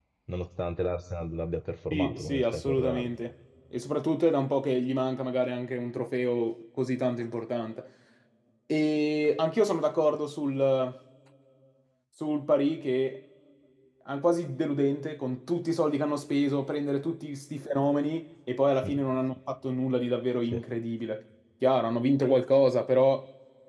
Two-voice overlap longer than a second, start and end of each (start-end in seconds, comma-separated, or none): 1.9-3.1